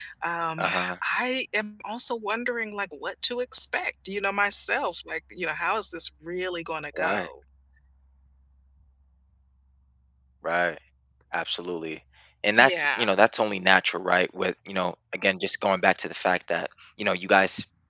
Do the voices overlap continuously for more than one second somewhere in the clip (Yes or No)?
No